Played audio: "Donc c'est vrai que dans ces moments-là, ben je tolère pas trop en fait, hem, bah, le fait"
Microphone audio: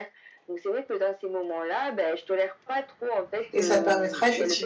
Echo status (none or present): present